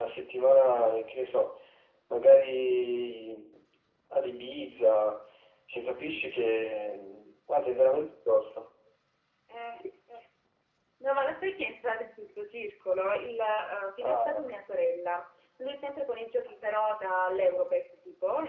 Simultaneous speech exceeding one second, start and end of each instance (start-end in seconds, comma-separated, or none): none